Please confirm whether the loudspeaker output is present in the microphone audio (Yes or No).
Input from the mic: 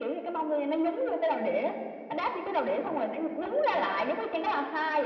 Yes